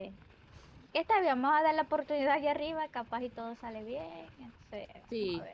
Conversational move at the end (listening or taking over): taking over